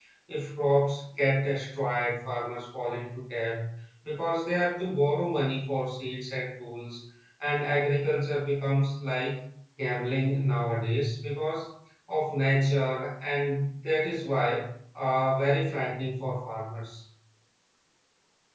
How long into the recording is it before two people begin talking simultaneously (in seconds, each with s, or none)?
none